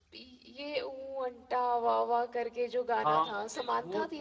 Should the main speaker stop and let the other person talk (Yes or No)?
Yes